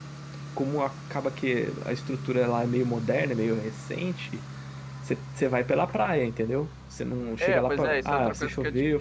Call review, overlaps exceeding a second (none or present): present